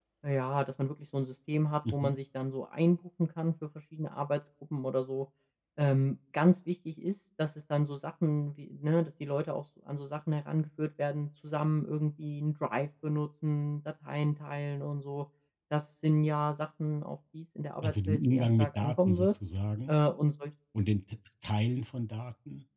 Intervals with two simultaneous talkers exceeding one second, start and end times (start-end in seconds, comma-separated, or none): 17.8-19.3